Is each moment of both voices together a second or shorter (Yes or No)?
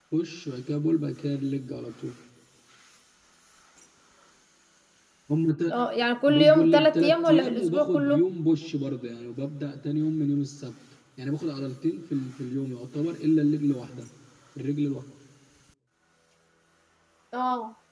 No